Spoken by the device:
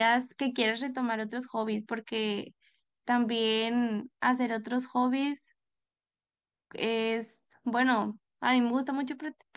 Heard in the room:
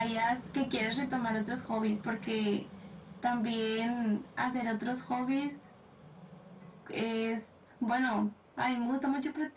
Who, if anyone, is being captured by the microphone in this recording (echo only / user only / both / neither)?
echo only